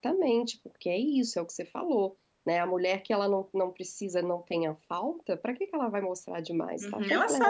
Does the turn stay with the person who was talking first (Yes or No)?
No